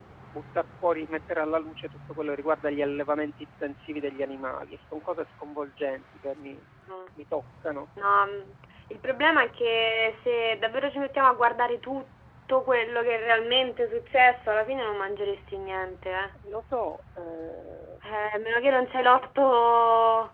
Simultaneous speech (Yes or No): No